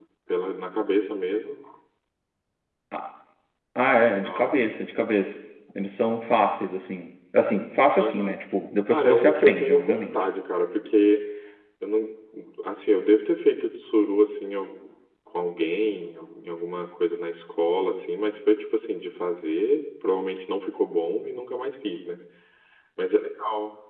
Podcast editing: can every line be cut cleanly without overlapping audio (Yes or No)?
No